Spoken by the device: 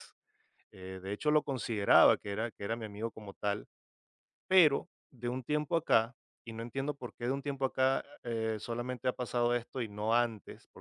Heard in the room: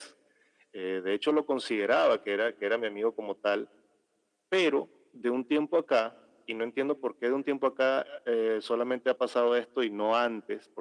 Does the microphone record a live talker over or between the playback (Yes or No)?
No